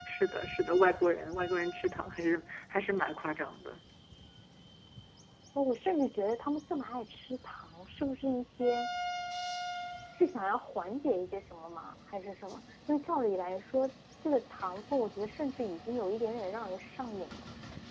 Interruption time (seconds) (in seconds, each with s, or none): none